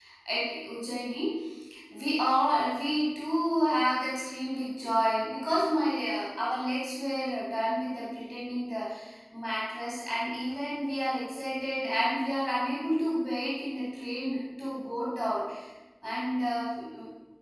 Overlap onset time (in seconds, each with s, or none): none